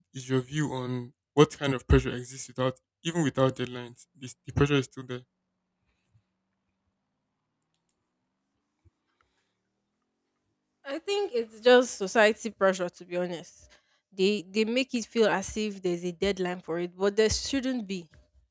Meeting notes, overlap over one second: none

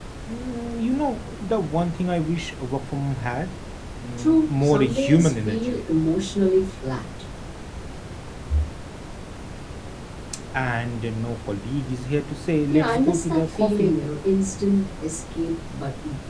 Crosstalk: present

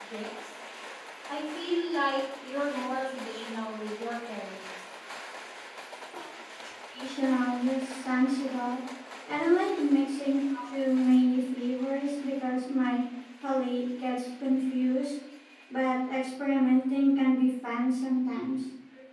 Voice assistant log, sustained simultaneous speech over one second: none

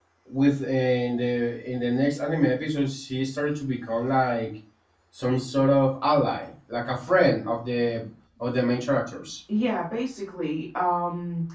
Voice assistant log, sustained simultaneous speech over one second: none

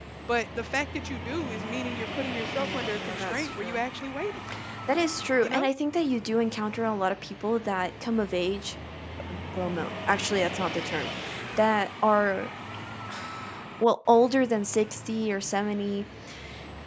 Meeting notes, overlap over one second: present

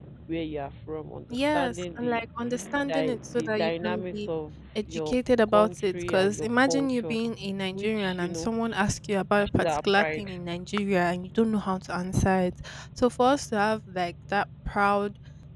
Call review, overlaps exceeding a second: present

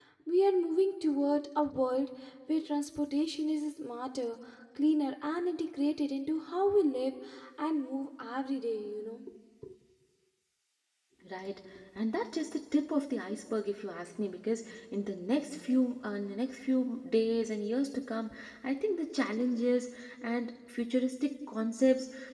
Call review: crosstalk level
none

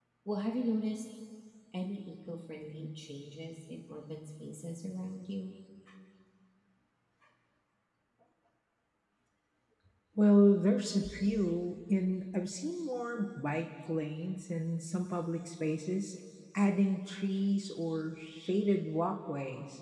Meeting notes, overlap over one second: none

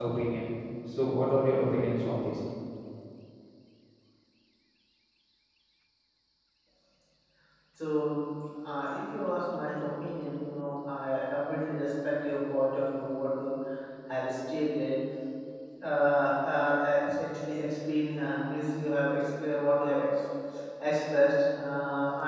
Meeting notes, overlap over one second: none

